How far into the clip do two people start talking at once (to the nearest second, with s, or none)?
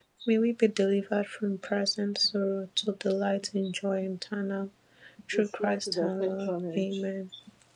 5 s